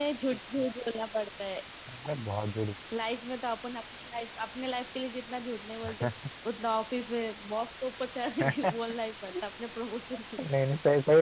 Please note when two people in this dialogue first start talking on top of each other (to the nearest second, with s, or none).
none